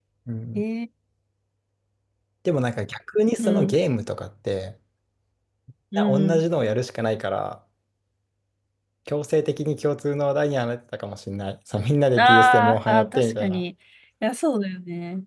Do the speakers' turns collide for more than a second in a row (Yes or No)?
Yes